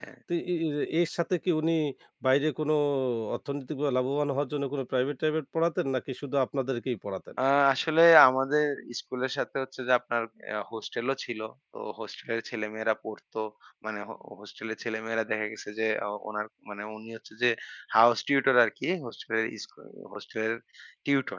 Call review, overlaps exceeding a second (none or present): none